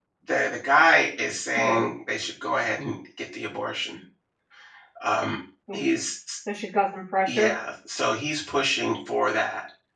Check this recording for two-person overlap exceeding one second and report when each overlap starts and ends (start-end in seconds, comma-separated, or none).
none